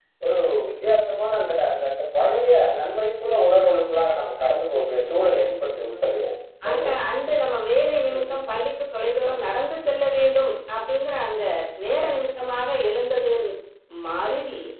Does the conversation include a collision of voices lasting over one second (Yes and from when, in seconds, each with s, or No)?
Yes, from 4.8 s